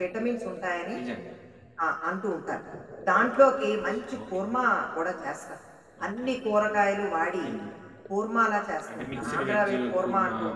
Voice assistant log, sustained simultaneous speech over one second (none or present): present